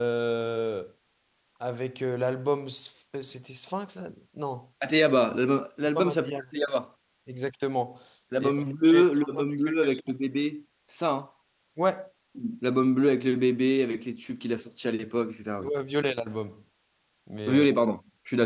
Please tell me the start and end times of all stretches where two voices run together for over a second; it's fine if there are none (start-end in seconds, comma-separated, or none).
8.4-10.0